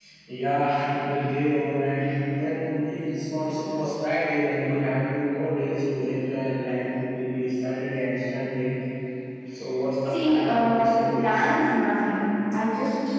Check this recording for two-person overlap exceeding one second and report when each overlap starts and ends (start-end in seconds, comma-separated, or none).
10.1-11.4